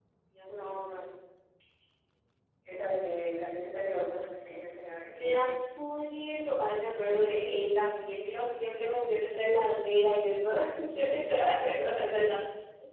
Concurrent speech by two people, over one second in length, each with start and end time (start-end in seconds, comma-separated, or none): none